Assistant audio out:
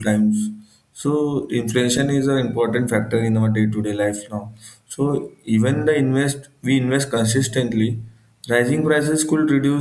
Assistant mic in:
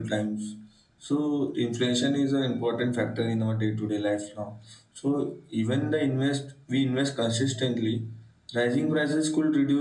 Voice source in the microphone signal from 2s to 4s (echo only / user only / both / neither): echo only